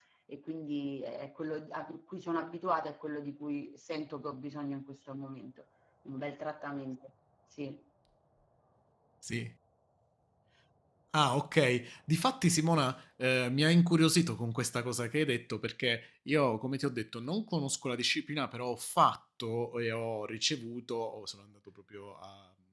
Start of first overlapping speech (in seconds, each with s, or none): none